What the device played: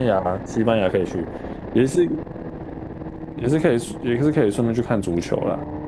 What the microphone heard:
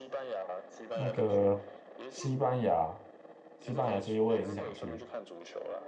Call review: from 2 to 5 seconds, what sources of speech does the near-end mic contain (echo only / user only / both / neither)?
both